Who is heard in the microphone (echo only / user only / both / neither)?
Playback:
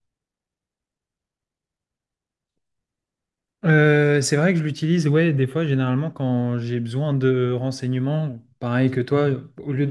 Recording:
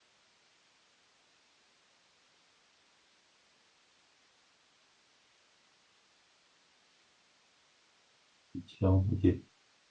user only